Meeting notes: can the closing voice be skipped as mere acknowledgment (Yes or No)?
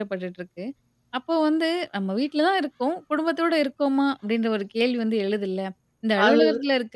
Yes